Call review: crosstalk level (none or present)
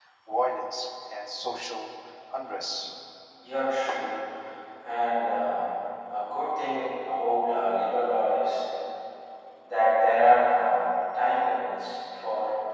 none